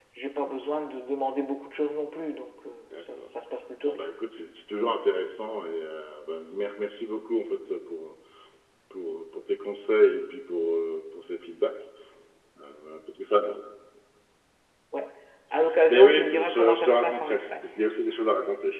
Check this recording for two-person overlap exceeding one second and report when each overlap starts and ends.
15.9-17.7

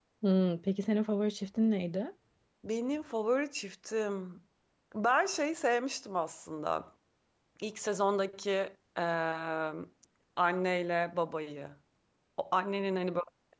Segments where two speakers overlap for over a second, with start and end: none

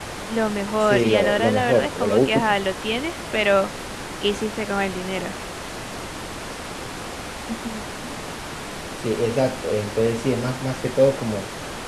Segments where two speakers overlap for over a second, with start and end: 0.8-2.6

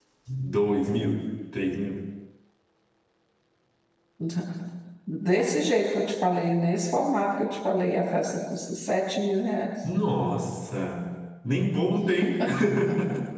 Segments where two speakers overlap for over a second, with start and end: none

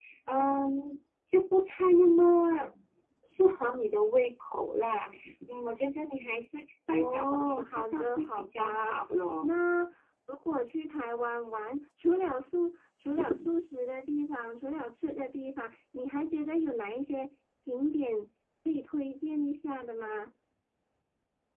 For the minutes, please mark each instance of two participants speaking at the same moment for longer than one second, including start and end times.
6.9-9.0

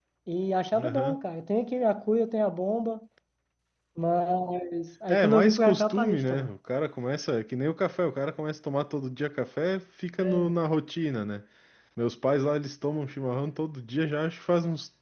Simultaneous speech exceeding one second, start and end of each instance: 5.1-6.5

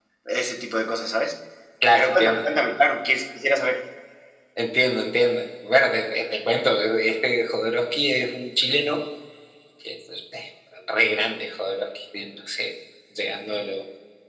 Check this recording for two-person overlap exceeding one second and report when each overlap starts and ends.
none

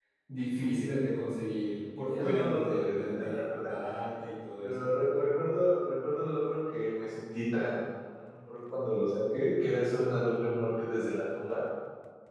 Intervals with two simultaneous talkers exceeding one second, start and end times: 2.1-3.7

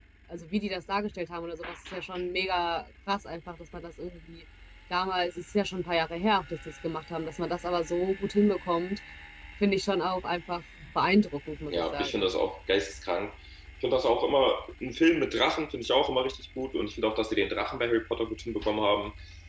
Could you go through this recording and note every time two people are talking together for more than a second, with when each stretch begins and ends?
none

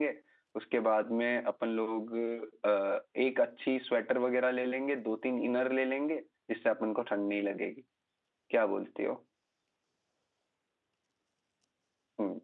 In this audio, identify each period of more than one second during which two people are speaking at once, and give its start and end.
none

